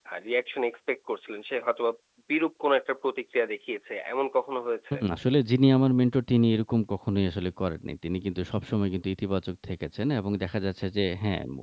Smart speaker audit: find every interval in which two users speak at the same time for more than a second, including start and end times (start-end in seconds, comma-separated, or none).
none